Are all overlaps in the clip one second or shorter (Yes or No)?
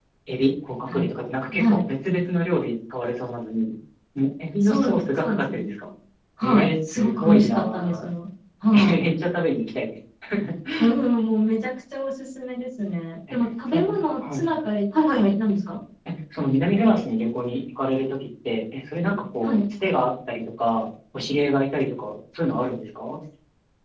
No